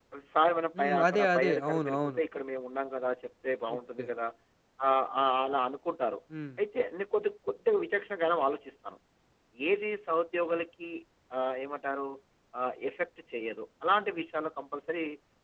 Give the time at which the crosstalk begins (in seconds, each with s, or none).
0.8 s